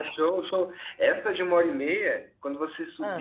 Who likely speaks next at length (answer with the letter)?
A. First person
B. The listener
A